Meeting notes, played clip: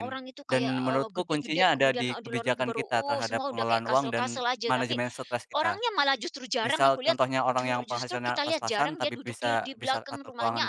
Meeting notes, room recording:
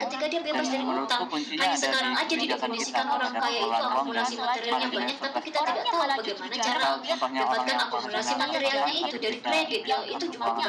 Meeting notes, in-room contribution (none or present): present